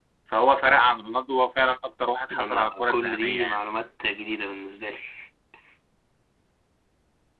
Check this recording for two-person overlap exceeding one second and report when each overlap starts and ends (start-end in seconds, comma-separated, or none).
2.3-3.6